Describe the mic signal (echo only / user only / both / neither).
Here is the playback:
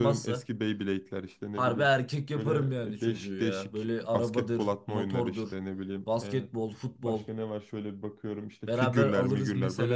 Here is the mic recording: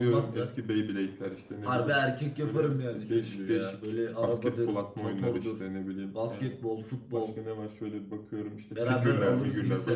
echo only